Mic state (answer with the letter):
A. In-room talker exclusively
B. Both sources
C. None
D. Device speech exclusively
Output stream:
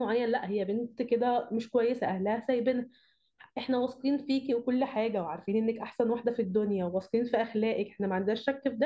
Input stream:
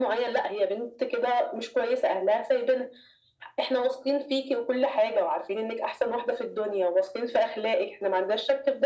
D